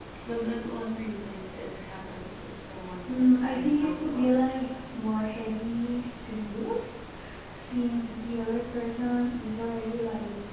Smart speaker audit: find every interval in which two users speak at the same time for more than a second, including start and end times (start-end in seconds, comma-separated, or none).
3.1-4.5